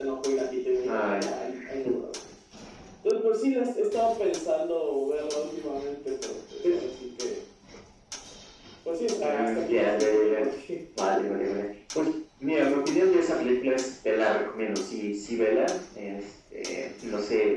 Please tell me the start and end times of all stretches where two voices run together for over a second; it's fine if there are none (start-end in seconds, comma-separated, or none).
9.2-10.4